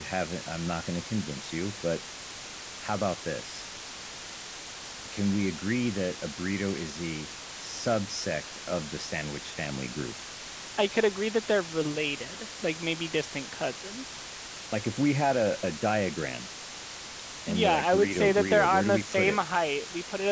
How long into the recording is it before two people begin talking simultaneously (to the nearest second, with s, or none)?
17 s